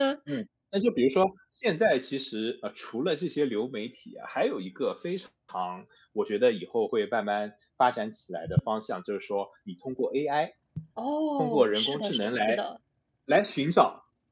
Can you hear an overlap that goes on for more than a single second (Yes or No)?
Yes